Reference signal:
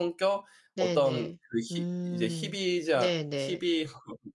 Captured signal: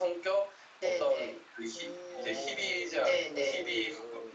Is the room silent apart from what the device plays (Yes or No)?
No